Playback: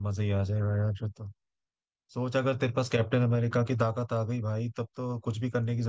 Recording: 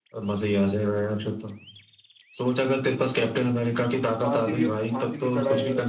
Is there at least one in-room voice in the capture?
Yes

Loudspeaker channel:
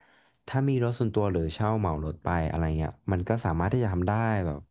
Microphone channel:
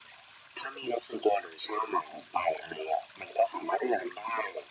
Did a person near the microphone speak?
No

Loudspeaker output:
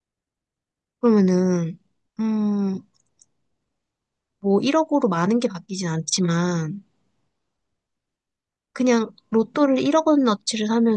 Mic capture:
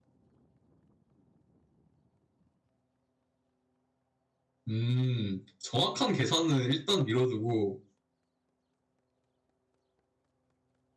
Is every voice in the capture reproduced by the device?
No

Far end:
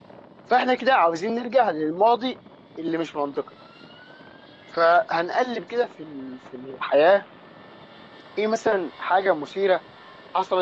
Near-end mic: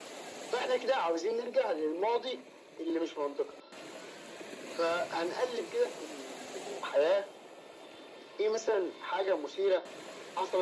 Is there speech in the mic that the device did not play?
No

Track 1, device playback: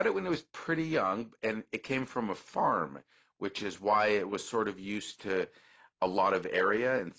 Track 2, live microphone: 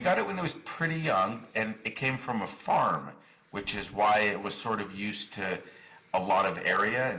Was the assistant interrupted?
No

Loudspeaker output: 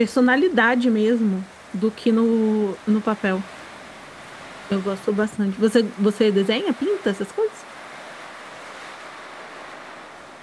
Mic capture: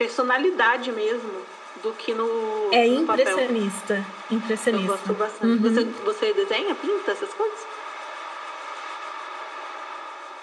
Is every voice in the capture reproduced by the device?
No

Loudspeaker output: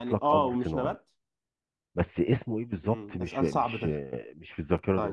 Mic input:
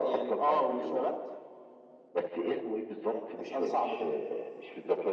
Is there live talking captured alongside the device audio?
No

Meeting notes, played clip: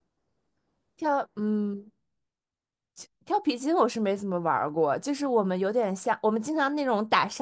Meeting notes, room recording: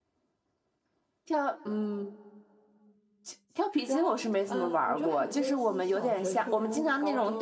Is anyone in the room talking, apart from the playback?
Yes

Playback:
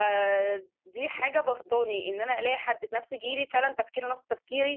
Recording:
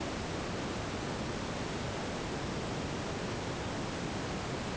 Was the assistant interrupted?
No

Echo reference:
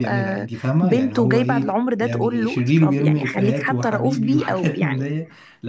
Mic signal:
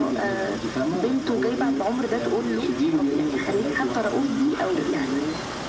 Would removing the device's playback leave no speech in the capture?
Yes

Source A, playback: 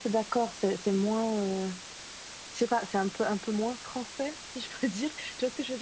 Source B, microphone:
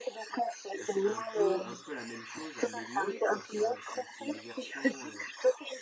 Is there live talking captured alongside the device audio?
Yes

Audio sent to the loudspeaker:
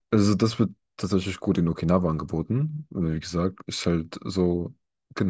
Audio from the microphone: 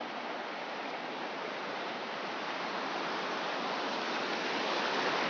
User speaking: No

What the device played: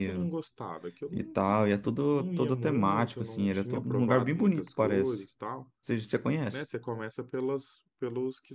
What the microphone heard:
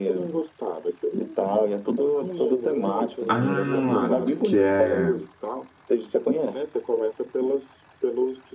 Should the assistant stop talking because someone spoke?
Yes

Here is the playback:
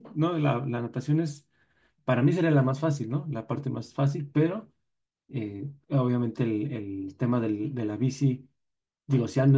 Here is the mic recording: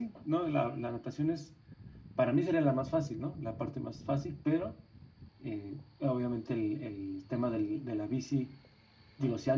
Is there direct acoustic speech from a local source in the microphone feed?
No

